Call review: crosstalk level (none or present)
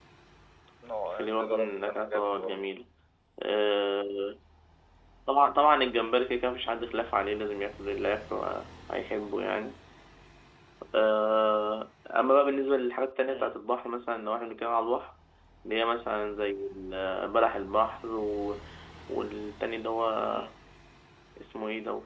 present